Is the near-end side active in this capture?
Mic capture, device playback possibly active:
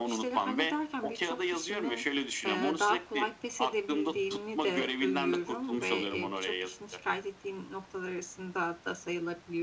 Yes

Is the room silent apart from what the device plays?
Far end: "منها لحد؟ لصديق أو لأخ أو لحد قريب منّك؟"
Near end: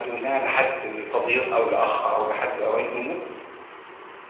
Yes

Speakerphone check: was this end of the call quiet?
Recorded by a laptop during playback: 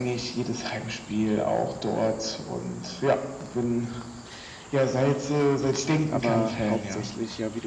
No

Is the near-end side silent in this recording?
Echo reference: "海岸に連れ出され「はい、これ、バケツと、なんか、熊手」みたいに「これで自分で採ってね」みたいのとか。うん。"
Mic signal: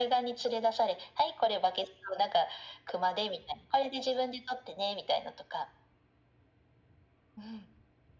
Yes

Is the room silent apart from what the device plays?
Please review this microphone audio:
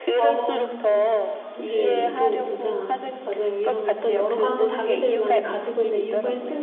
No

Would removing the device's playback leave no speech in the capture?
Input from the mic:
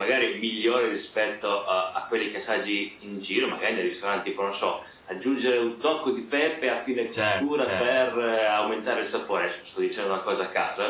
No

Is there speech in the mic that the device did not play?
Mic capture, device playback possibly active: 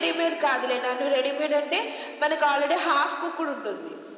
No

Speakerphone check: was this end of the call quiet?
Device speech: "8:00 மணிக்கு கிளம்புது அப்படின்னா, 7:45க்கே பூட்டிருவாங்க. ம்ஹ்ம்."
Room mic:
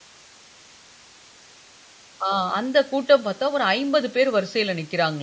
No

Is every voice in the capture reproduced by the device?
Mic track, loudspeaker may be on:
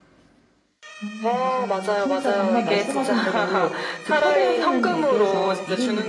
No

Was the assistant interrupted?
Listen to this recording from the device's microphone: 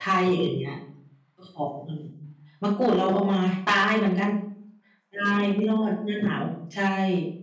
Yes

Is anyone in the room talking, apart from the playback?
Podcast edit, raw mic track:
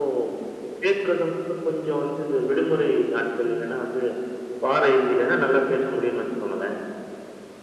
No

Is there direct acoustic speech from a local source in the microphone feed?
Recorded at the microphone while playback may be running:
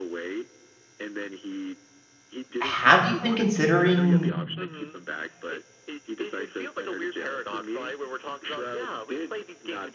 Yes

